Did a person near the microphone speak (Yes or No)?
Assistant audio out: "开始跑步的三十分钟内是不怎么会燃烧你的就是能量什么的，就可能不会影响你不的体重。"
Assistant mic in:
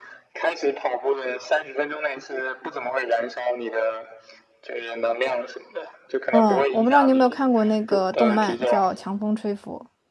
Yes